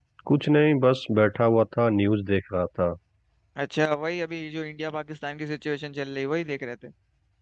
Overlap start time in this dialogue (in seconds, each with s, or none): none